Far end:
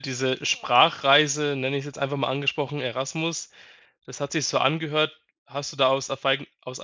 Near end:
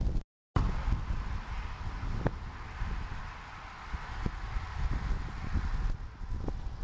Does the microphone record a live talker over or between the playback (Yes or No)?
No